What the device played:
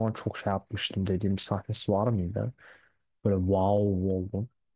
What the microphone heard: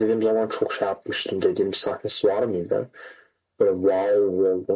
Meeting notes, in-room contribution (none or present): none